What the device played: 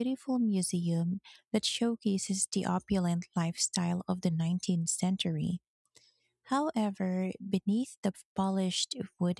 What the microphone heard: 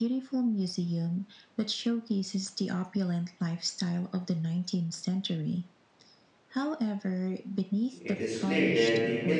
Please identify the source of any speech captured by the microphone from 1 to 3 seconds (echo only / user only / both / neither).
echo only